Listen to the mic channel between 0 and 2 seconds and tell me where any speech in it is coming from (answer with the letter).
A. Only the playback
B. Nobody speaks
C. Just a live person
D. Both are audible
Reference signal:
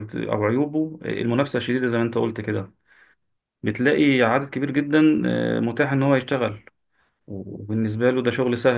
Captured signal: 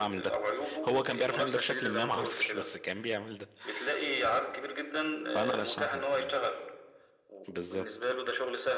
D